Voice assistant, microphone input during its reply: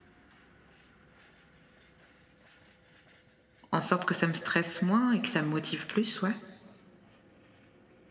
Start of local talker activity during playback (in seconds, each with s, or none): 3.7 s